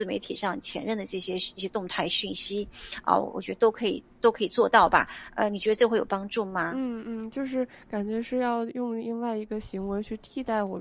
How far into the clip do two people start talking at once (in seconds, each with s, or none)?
none